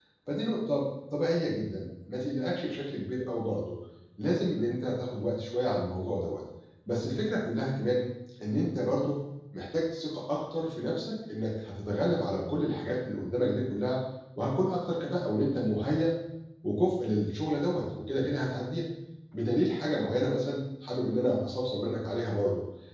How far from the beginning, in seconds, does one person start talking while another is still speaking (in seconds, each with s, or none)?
none